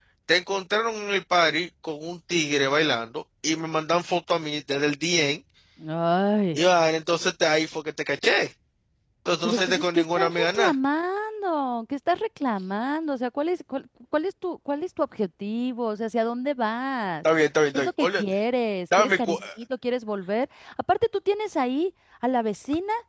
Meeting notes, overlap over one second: present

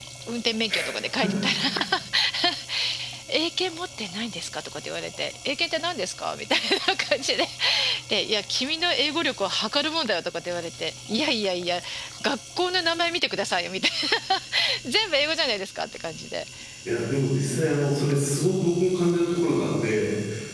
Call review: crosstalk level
none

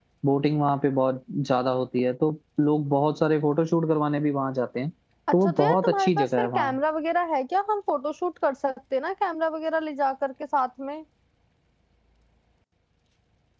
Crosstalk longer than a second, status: present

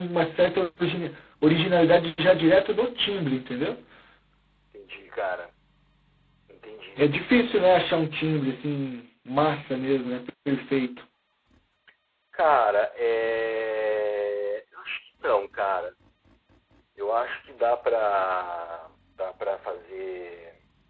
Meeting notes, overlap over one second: none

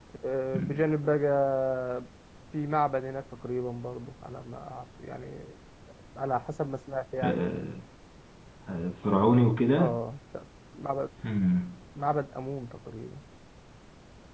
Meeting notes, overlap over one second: none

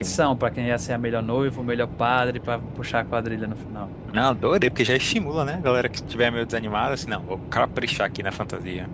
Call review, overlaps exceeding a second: none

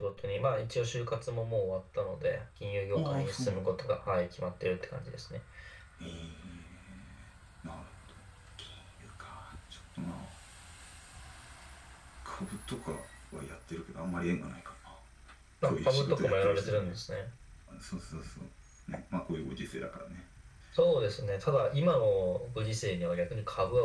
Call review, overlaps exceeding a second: present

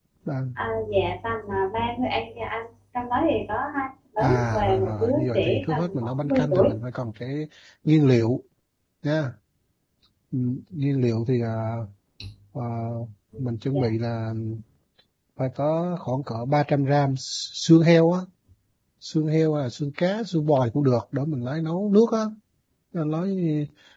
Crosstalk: present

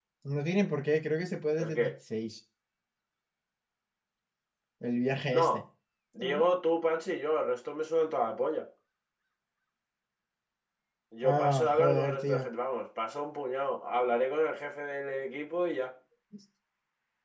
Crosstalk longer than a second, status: present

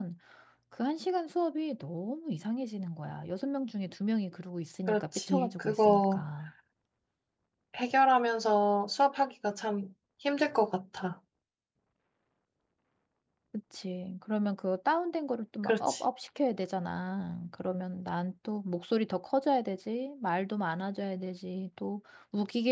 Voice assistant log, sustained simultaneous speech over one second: present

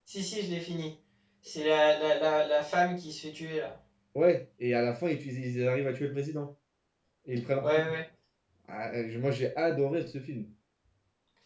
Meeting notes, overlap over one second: none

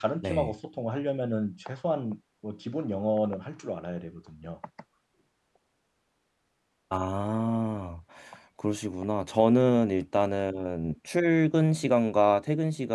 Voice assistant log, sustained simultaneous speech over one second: none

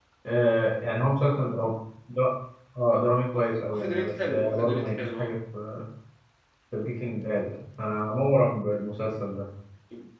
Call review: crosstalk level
present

